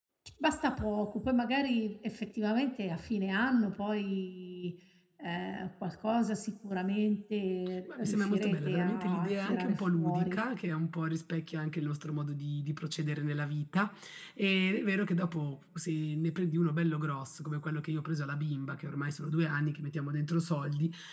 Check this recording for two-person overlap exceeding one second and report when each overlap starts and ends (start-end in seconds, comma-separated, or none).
8.0-10.4